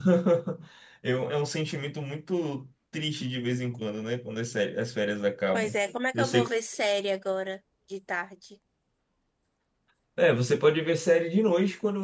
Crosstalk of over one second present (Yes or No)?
No